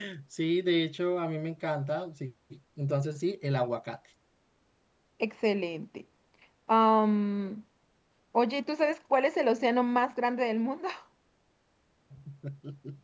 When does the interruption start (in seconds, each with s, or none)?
none